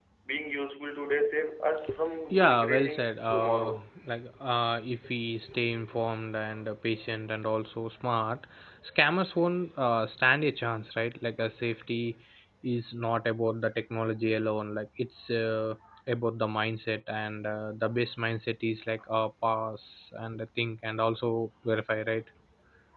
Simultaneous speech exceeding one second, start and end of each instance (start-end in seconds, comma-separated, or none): 2.3-3.9